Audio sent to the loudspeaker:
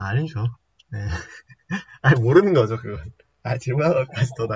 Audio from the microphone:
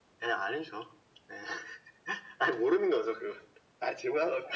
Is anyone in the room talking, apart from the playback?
No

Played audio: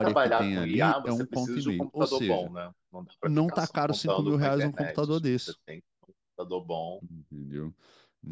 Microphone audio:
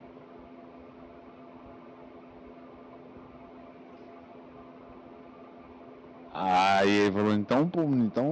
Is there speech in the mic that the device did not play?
Yes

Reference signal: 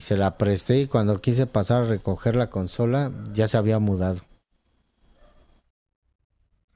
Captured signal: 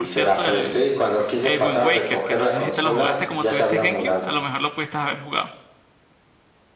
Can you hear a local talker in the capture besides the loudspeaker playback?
Yes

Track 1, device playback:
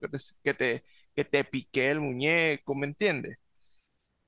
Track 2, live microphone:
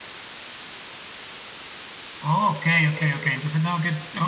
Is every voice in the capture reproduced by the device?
No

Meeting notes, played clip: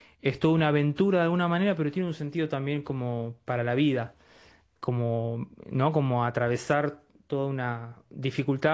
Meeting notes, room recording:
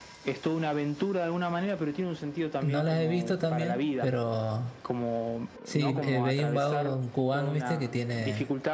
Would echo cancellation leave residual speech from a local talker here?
Yes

